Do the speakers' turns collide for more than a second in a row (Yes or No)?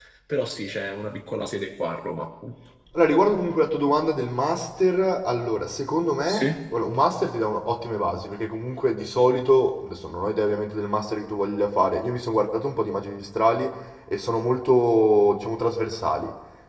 No